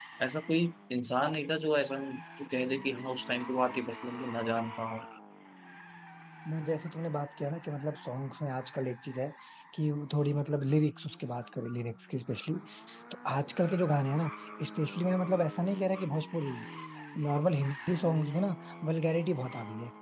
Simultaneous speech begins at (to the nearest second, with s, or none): none